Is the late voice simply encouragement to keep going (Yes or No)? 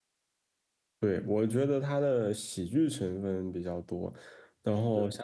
Yes